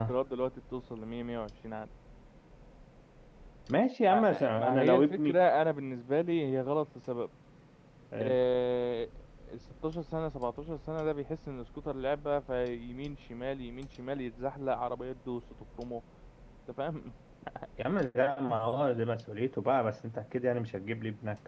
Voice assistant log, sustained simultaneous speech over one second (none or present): present